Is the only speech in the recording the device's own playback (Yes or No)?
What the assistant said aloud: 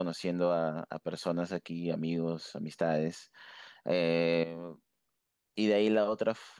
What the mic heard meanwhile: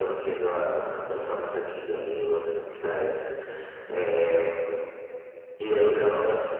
Yes